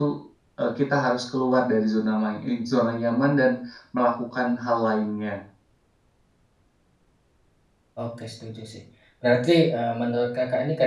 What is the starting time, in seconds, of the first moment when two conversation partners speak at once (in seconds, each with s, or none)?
none